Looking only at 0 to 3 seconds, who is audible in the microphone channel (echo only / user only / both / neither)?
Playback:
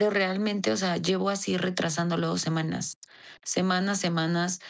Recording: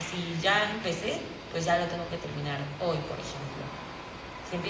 user only